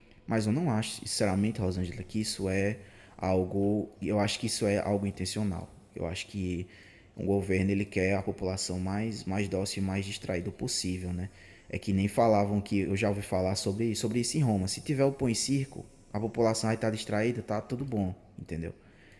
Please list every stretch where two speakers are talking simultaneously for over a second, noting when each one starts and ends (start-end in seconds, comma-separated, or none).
none